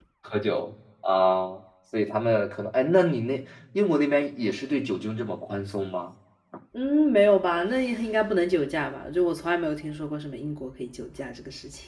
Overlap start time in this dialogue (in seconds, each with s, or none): none